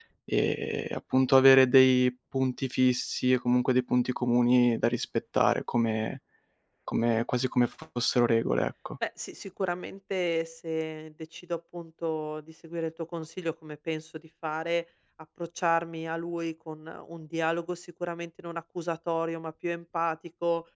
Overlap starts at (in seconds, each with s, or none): none